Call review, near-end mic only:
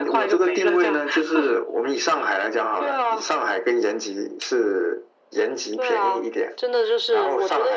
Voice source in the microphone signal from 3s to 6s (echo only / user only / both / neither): echo only